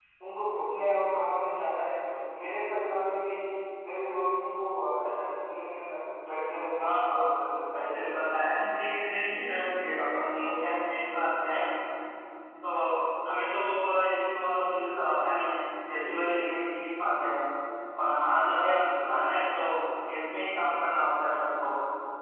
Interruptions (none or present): present